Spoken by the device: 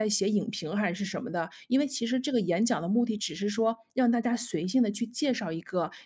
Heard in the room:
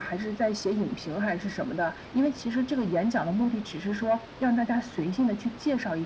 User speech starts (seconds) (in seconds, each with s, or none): none